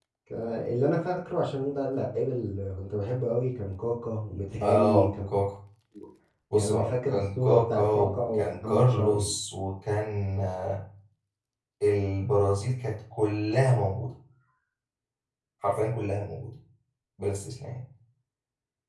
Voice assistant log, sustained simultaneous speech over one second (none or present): present